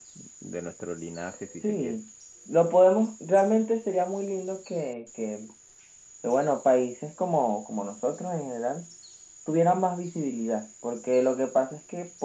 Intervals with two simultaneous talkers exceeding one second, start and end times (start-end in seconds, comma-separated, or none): none